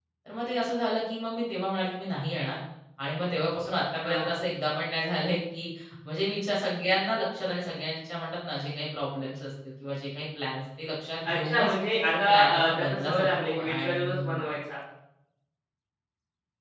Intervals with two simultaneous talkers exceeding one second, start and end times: 12.2-14.2

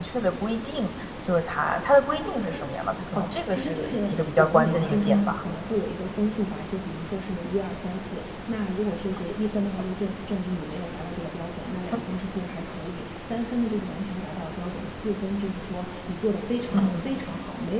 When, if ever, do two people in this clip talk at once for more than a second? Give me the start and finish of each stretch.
3.1-5.4

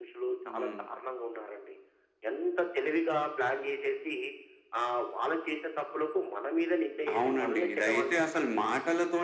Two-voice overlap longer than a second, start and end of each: 7.2-8.5

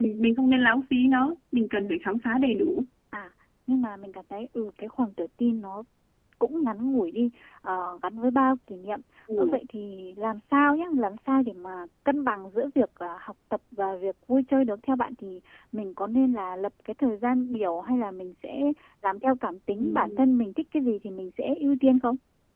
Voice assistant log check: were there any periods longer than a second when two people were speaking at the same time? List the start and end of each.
none

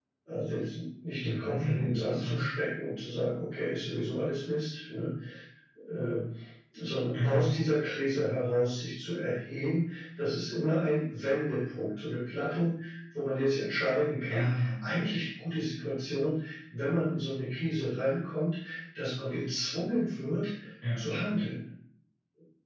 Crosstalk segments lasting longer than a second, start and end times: 1.2-2.4

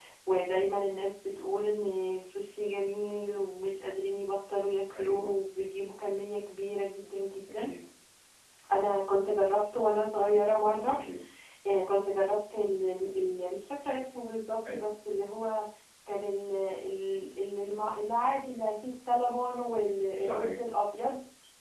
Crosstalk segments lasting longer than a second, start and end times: none

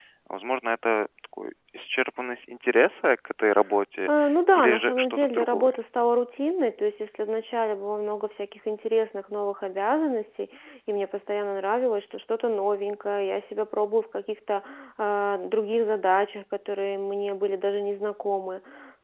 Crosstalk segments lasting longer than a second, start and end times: 4.6-5.8

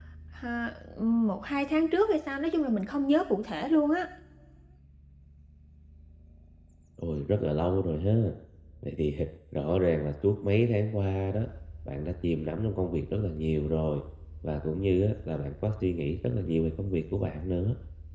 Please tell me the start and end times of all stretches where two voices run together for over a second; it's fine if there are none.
none

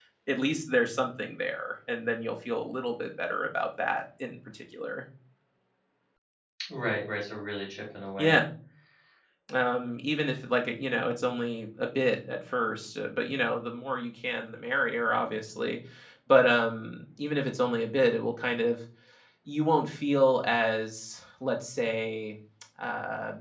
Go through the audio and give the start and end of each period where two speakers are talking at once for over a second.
none

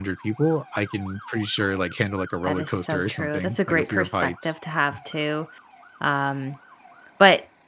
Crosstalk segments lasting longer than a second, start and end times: 2.5-4.5

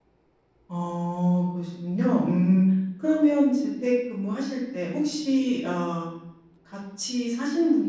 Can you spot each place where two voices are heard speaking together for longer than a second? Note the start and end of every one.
none

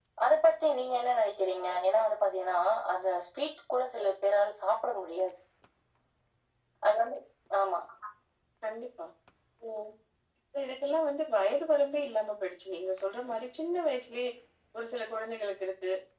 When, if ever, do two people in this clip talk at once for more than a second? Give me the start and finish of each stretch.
none

